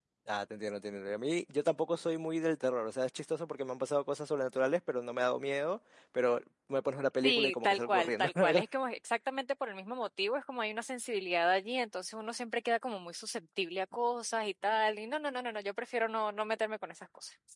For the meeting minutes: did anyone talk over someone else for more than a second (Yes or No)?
Yes